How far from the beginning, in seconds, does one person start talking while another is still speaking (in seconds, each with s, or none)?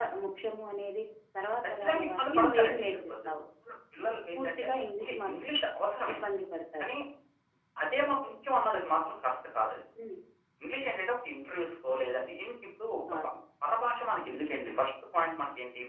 1.8 s